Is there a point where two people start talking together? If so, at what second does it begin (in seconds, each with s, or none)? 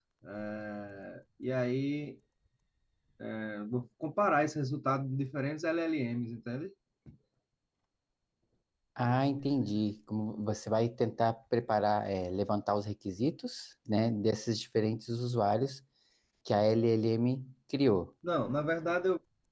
none